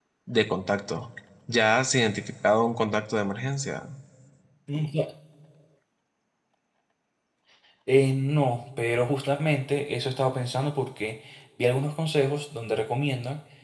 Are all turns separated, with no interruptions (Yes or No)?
Yes